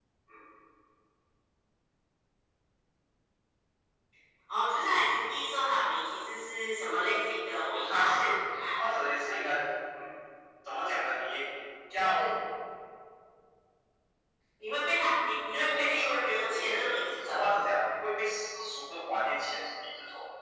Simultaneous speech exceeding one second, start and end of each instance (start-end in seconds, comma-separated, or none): 15.5-17.5